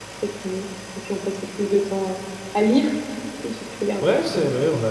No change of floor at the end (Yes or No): No